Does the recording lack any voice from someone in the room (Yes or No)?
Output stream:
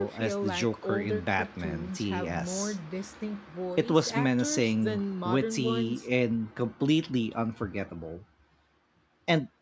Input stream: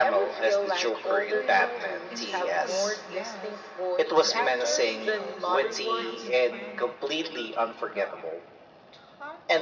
No